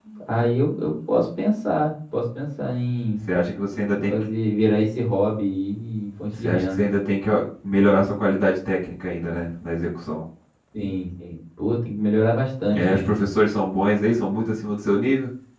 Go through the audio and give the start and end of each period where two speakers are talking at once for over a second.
none

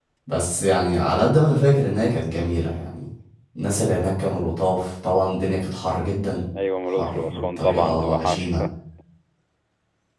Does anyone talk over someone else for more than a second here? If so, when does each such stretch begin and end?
6.9-8.6

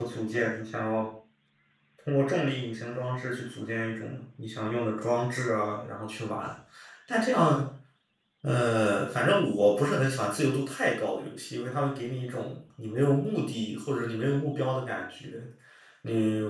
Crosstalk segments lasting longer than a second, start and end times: none

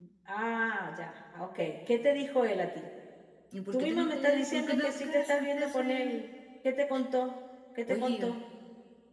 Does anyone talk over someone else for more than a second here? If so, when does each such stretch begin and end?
3.7-6.1

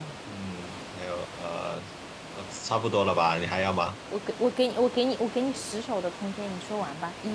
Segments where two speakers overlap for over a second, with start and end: none

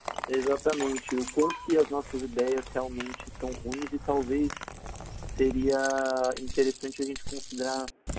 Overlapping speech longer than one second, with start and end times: none

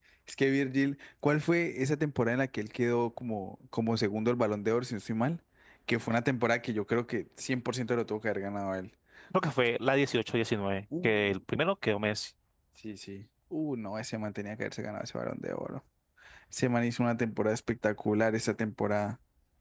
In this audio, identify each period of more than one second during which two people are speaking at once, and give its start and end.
none

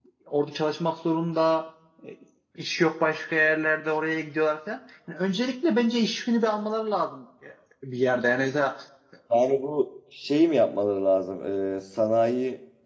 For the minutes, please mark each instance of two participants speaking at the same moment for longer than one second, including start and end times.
none

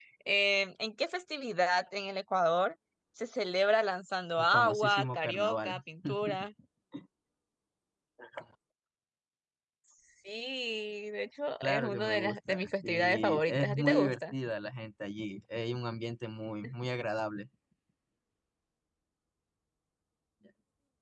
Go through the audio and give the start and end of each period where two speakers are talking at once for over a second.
4.4-5.8, 11.6-14.3

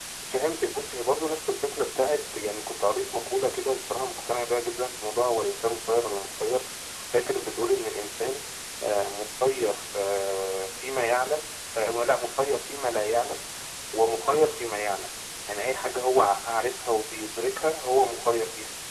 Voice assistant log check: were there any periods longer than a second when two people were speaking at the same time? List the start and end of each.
none

